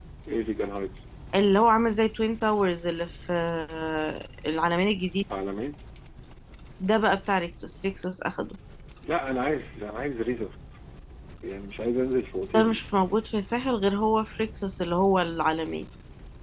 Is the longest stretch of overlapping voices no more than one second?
Yes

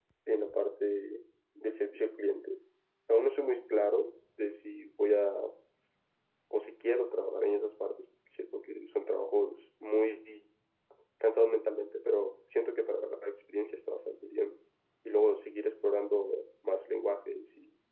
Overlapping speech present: No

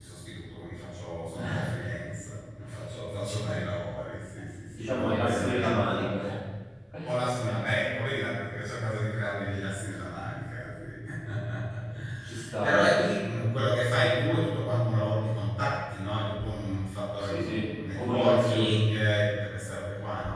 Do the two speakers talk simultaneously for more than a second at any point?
Yes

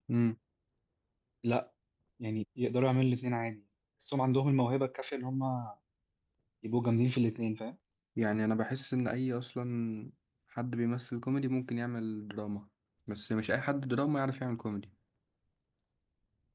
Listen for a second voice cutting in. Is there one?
No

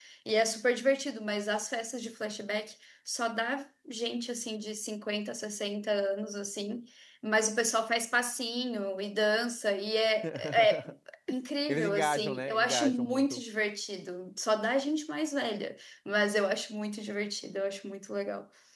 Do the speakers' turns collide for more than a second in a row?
Yes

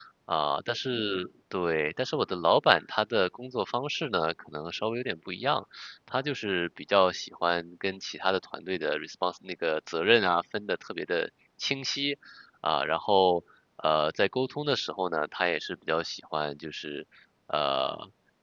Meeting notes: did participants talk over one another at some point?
No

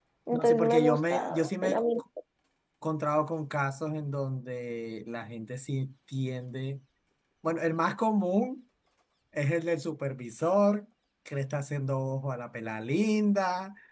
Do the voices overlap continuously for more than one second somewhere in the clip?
Yes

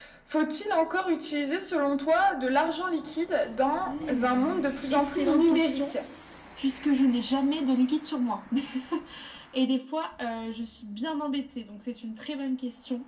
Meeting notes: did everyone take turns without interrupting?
No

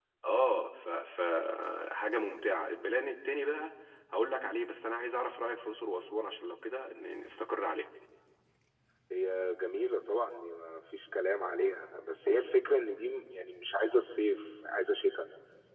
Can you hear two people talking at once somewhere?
No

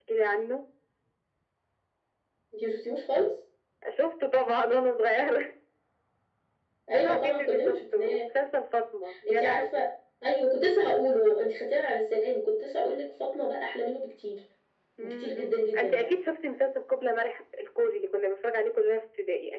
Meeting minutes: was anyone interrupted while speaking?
Yes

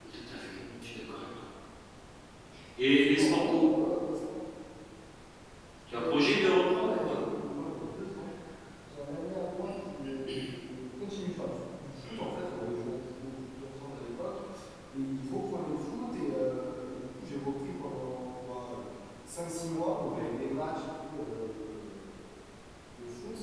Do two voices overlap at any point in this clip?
Yes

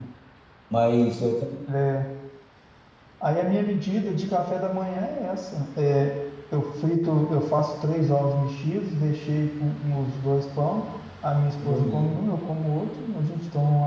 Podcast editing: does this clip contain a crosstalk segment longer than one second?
No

